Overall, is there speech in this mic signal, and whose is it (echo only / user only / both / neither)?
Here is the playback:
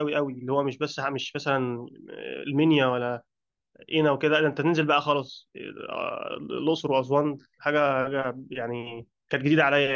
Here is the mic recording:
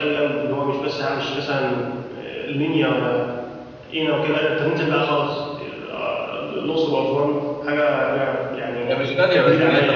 both